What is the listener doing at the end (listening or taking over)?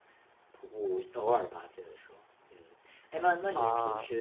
listening